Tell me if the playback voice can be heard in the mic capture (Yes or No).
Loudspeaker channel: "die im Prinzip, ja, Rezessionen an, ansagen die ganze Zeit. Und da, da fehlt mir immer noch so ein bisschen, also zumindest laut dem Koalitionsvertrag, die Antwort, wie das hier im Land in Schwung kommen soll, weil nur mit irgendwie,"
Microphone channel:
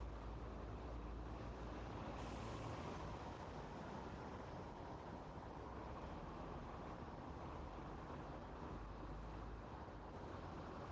No